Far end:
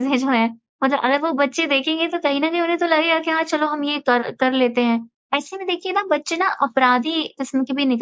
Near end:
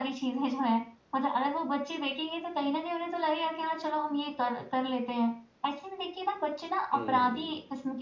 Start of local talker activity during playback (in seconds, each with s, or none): 6.9 s